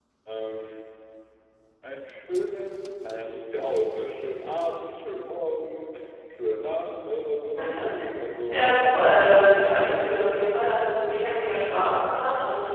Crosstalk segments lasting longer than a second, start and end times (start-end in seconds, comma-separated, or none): 8.5-10.0